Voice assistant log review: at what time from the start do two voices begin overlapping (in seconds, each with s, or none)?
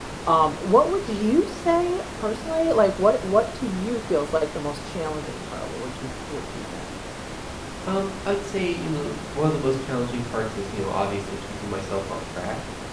none